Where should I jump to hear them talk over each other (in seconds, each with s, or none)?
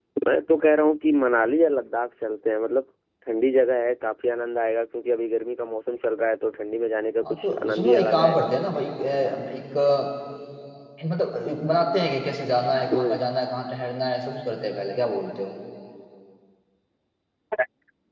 7.3 s